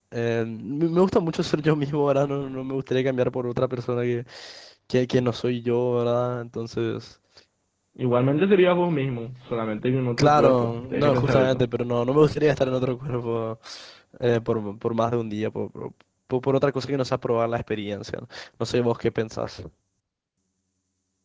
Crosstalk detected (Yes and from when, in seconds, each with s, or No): Yes, from 10.2 s